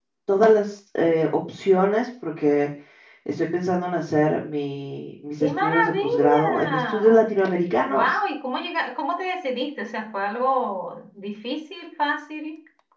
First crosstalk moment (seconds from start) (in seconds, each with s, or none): 5.4 s